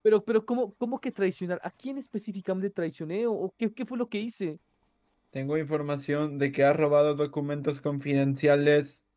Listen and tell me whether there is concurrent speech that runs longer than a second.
No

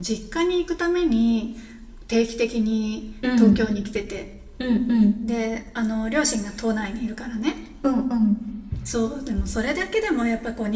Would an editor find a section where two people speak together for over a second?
No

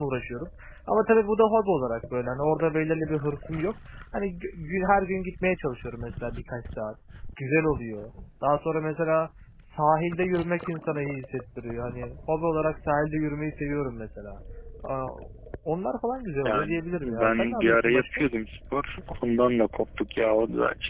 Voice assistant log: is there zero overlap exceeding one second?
No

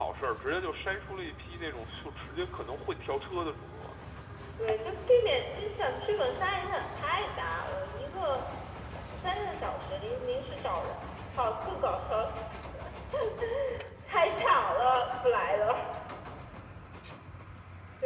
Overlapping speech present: No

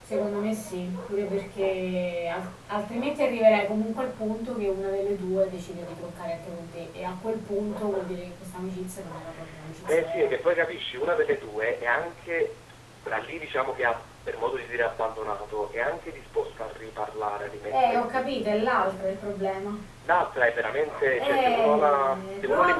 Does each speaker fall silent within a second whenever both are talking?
No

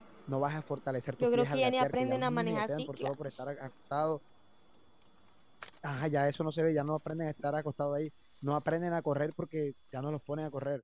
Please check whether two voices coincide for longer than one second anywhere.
Yes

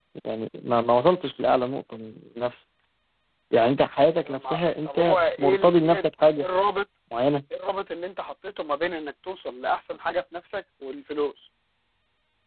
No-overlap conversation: No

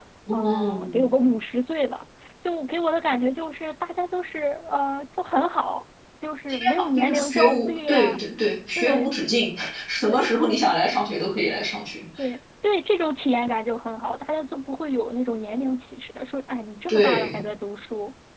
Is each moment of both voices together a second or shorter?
No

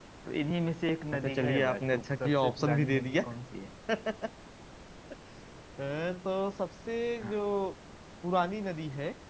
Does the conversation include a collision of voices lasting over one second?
Yes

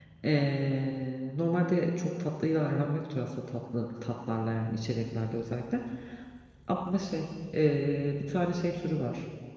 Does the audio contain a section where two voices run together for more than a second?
No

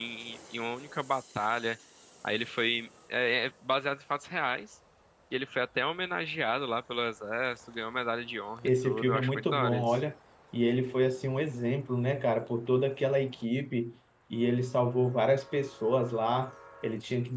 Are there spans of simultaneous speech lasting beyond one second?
Yes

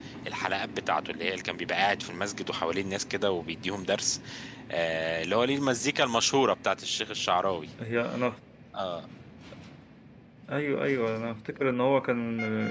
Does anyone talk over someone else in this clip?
No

